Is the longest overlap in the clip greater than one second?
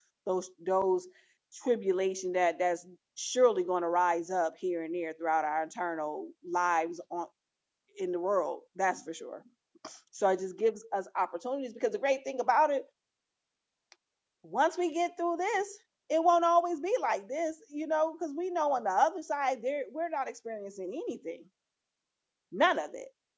No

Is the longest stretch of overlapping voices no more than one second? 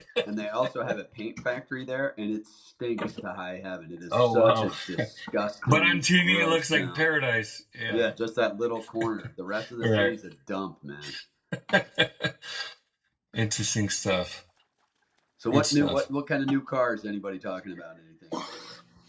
No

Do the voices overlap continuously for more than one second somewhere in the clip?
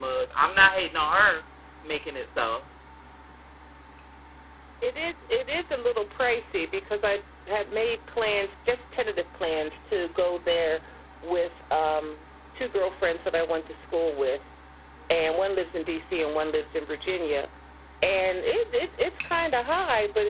No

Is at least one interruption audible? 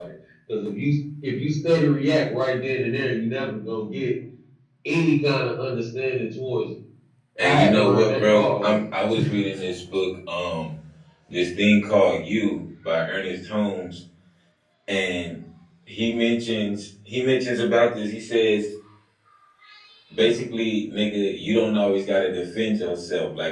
Yes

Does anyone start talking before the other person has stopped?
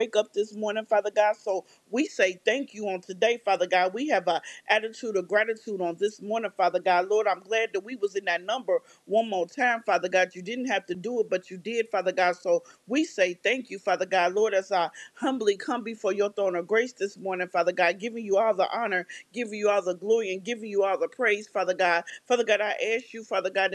No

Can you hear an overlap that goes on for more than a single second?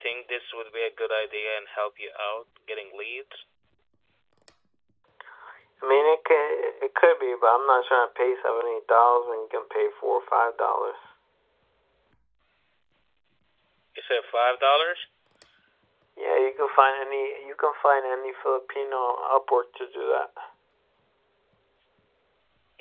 No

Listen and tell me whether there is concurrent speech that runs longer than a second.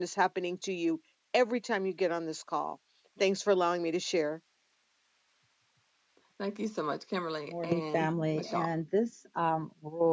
Yes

